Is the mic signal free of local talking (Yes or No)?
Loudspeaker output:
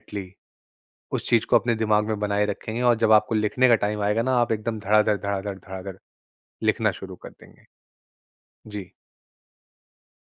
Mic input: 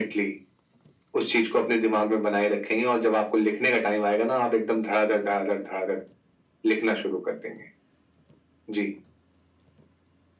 Yes